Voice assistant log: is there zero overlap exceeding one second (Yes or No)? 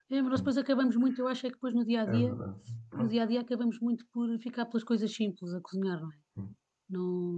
Yes